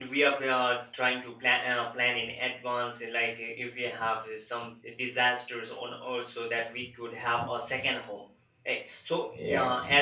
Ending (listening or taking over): listening